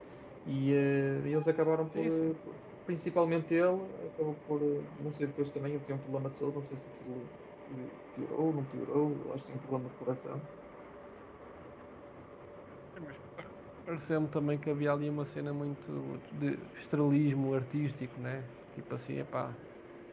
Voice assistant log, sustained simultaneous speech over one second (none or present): none